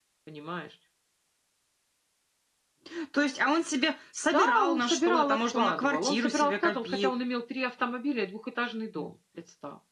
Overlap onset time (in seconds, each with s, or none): 4.3 s